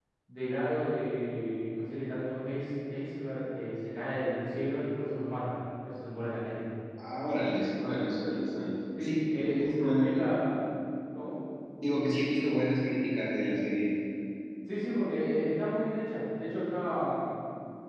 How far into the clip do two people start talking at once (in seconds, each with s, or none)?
9.0 s